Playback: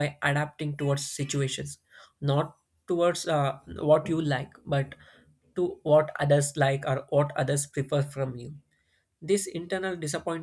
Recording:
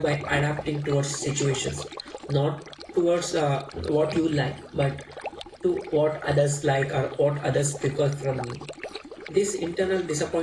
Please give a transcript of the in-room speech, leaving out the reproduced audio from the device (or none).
none